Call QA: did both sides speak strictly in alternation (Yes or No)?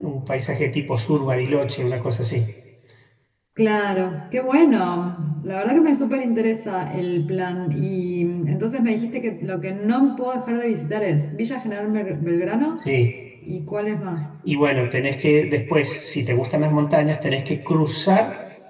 Yes